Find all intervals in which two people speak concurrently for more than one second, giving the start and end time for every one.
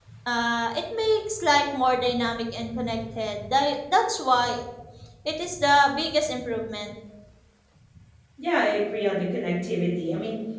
none

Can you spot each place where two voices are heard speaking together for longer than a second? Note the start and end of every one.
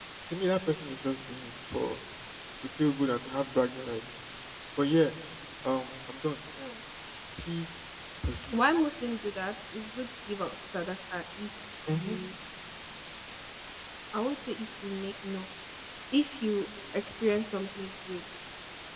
none

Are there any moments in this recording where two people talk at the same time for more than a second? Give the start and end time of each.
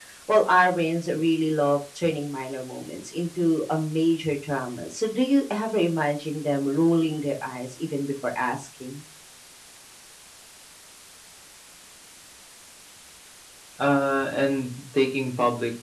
none

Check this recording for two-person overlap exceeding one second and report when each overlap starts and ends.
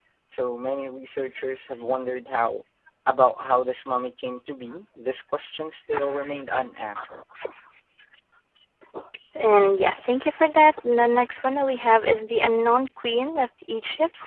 none

